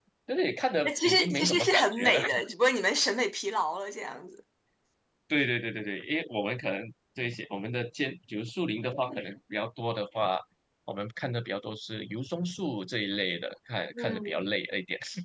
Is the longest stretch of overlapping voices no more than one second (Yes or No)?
No